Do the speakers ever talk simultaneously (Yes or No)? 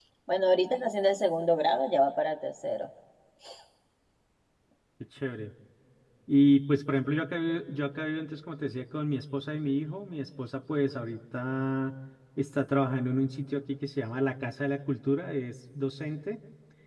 No